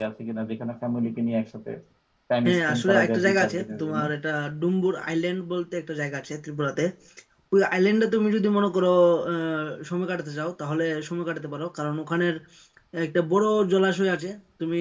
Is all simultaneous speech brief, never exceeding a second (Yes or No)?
No